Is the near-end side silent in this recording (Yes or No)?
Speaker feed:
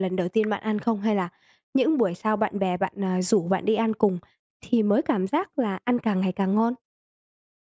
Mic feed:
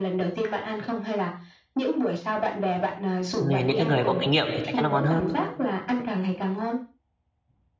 No